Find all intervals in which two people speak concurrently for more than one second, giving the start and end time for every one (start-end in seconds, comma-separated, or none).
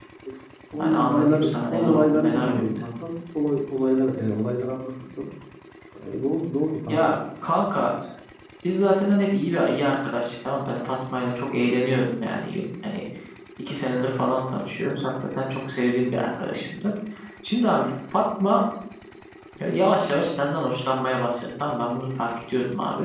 0.8-2.6